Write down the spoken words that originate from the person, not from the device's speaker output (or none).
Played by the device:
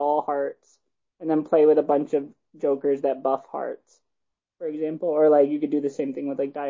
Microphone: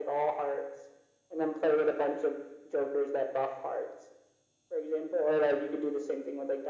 none